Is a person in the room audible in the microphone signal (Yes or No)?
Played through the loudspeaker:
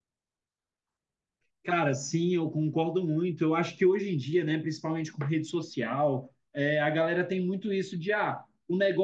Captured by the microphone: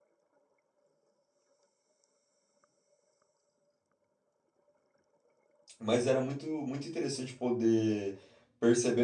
Yes